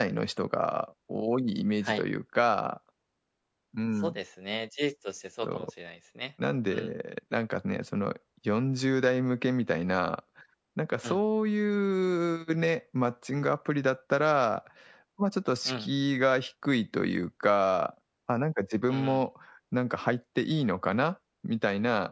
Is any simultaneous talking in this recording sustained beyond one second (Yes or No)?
No